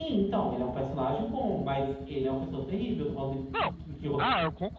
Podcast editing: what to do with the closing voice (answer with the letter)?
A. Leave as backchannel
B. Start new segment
B